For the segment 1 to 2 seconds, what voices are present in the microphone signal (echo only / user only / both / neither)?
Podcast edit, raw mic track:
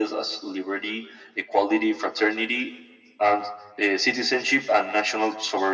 echo only